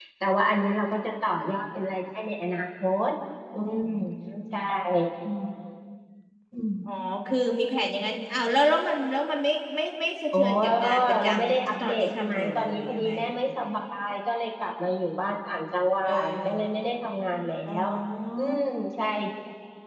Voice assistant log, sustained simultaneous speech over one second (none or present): present